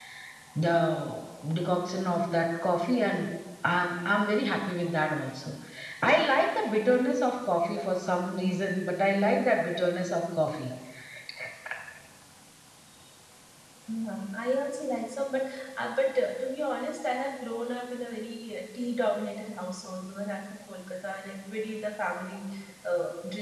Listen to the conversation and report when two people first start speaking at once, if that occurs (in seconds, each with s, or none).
none